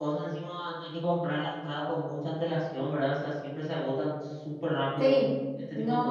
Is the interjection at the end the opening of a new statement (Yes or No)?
Yes